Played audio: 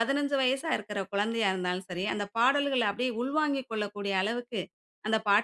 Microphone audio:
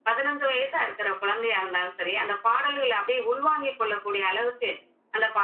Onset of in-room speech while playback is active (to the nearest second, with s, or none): none